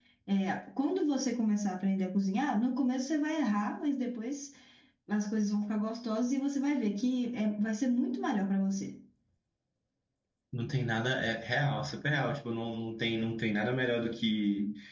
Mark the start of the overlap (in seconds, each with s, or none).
none